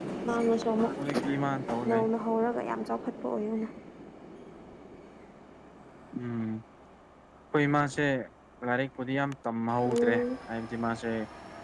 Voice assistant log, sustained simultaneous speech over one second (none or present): none